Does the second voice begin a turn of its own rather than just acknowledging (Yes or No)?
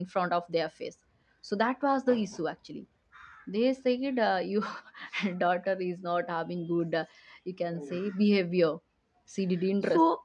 Yes